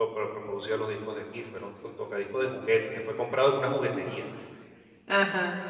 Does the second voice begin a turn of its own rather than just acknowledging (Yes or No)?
No